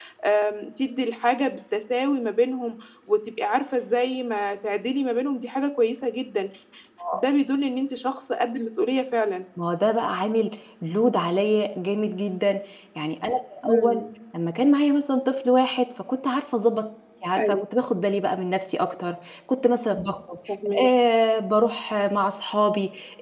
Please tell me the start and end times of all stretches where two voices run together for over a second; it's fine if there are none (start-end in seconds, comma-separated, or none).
none